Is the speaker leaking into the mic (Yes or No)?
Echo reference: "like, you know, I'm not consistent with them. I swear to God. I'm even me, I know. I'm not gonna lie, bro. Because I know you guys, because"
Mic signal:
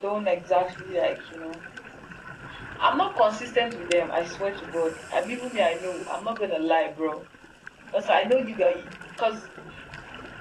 Yes